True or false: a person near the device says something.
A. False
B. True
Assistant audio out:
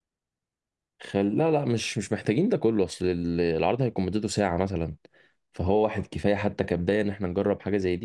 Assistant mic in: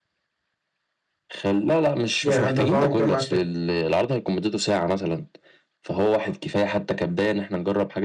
B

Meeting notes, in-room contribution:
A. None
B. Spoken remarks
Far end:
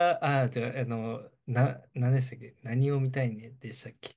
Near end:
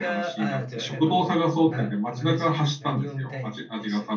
B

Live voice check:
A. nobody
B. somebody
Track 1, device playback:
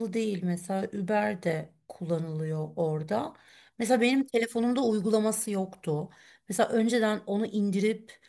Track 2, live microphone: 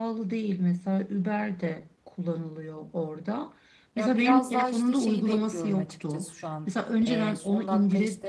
B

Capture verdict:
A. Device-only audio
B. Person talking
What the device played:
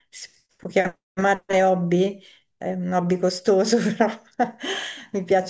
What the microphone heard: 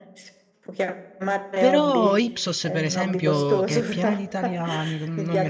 B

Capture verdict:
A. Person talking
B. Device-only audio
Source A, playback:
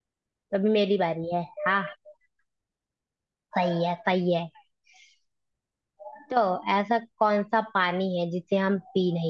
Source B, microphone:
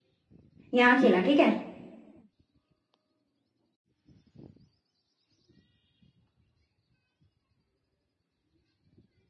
A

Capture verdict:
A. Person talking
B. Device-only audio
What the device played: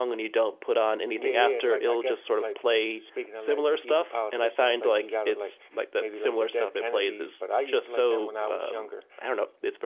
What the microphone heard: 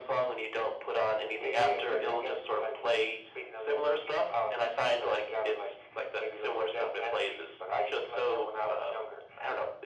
B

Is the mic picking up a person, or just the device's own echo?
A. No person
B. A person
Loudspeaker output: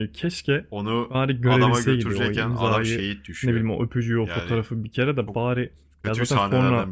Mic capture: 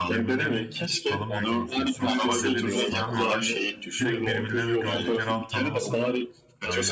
B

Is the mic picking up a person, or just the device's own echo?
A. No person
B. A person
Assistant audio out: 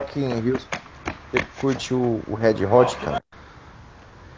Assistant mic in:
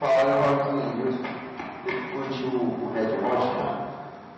A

